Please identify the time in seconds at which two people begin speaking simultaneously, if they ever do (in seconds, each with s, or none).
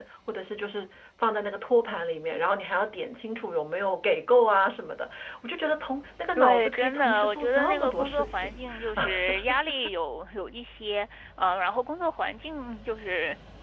6.4 s